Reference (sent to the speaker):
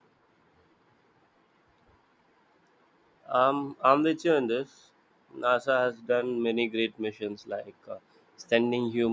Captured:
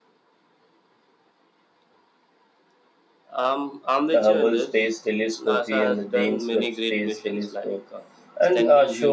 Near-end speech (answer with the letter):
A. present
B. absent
A